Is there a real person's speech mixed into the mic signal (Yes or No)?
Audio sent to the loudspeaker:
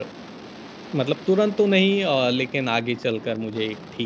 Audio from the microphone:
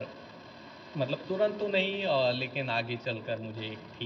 No